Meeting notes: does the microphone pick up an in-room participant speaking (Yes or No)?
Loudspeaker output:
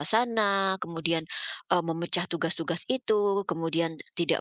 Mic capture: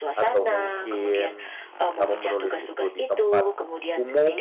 Yes